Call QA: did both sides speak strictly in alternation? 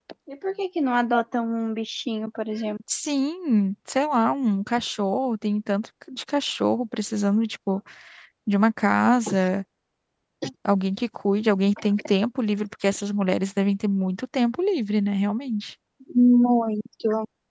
Yes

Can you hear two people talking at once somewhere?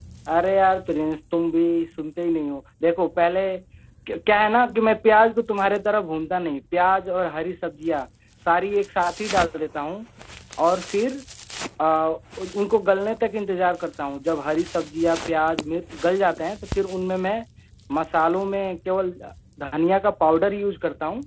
No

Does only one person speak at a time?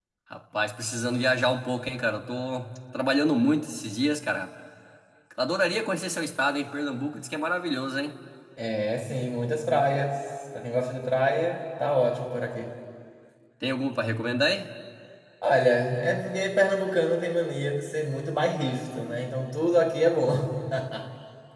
Yes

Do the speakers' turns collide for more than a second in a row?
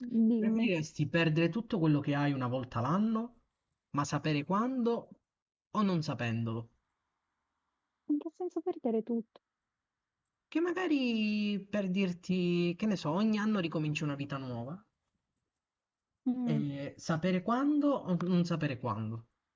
No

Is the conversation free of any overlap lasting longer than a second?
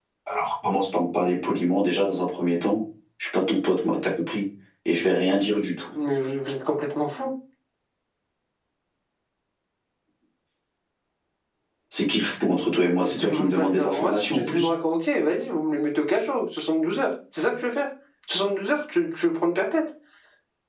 No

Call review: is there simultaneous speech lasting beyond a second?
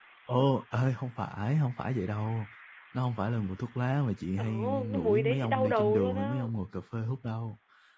Yes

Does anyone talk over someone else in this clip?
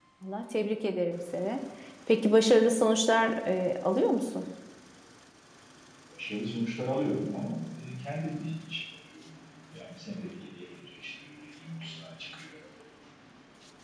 No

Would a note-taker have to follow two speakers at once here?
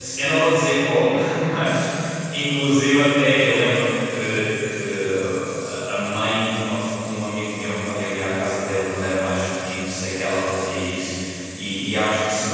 No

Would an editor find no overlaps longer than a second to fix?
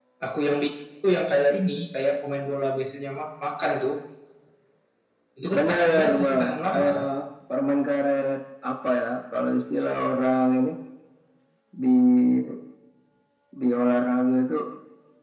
No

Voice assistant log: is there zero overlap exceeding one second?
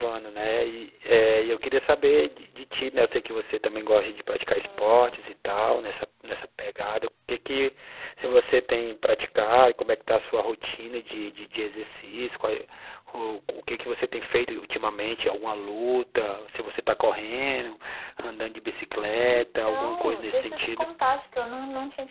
No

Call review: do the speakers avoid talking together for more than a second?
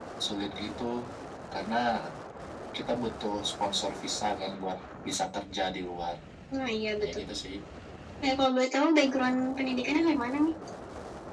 Yes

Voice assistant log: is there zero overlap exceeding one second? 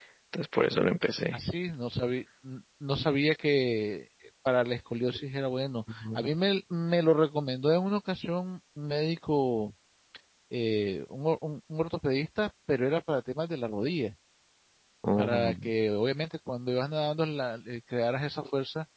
Yes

